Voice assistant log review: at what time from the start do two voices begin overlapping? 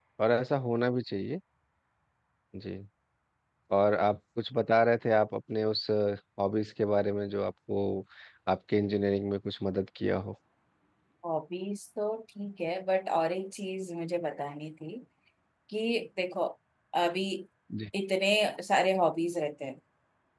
none

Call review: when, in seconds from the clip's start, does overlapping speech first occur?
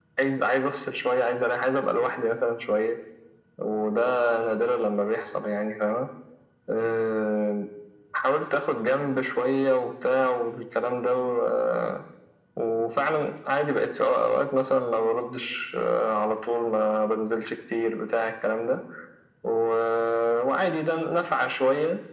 none

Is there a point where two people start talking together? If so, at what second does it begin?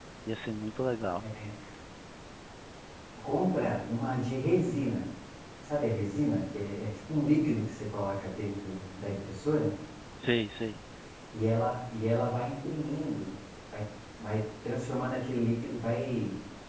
none

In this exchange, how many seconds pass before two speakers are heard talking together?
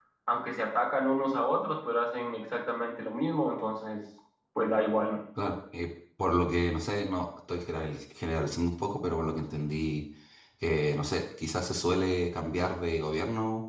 none

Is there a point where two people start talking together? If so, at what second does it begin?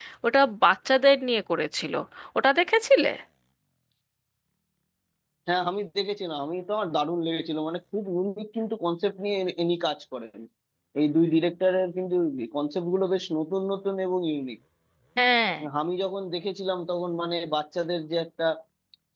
none

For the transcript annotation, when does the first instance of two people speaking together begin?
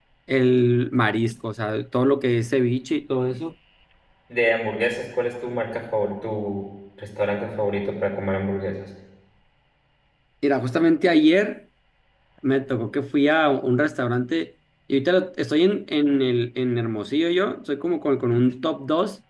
none

